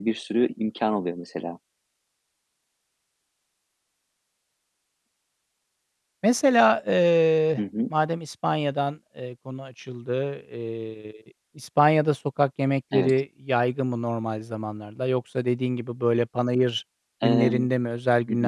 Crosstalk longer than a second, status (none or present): none